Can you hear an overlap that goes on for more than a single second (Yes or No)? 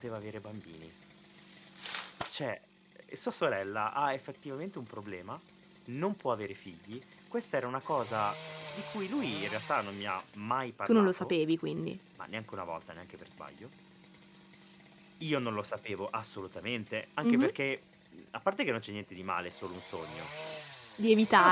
No